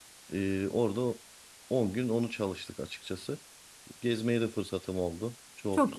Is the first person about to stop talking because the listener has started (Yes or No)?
No